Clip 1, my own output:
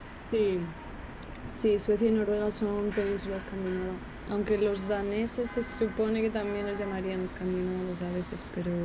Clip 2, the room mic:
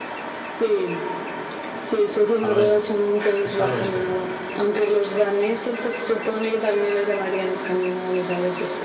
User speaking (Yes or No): Yes